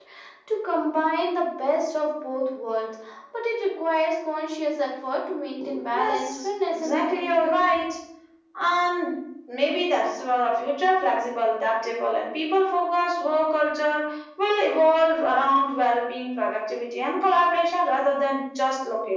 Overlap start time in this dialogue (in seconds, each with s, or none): 5.9 s